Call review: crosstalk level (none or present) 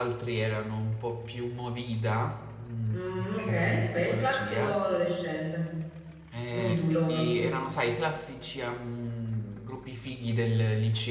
present